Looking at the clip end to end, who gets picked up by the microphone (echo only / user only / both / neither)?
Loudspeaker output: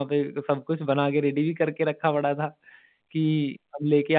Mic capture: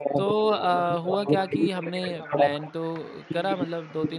both